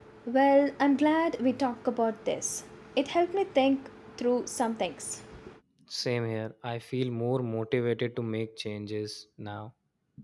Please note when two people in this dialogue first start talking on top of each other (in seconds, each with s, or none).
none